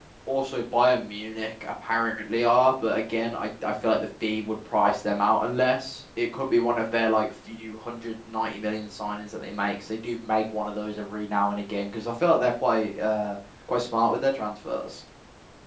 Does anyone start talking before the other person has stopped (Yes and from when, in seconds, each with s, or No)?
No